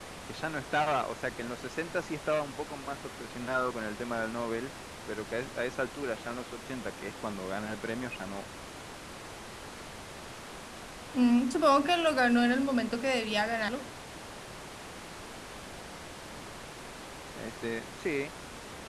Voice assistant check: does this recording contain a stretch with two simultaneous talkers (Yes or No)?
No